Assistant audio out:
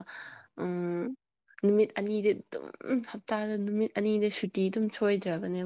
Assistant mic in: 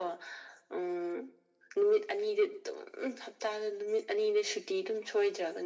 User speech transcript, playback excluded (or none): none